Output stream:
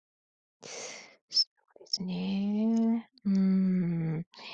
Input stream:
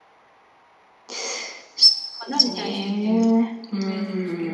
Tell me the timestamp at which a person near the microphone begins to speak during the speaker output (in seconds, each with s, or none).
2.2 s